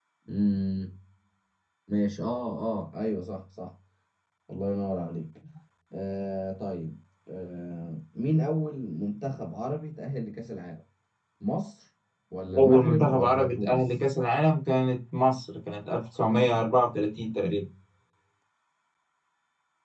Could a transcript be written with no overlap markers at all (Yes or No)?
No